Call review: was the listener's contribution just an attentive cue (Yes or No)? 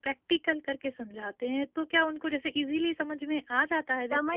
No